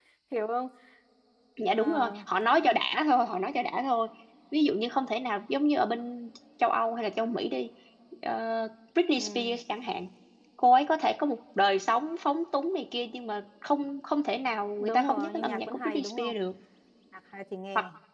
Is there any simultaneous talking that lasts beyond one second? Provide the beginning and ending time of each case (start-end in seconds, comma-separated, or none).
14.8-16.3